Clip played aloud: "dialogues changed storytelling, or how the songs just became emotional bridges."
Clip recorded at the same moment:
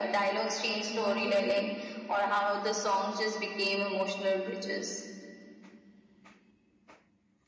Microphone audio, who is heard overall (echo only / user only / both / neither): both